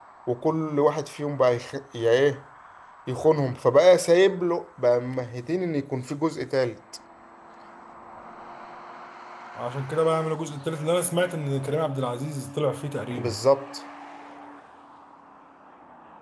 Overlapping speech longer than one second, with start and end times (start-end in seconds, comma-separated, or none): none